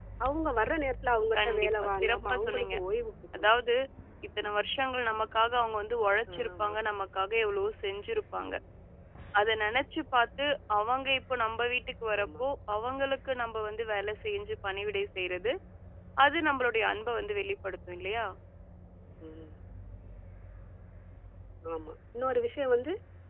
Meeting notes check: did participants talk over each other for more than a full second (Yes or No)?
Yes